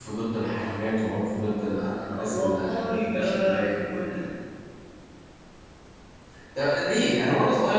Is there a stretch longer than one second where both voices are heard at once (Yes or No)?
Yes